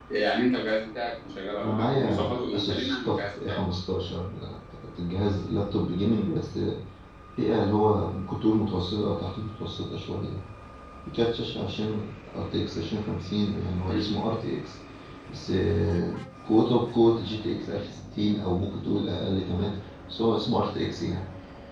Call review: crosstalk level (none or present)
present